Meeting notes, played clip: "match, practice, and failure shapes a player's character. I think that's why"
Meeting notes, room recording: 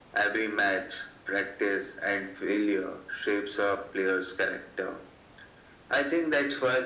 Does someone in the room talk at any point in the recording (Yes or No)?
No